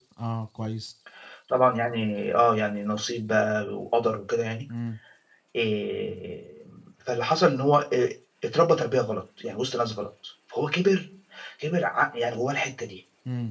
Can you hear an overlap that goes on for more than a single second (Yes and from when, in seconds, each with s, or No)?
No